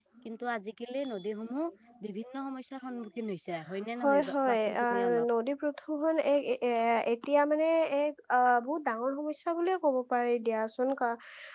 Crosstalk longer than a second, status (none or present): present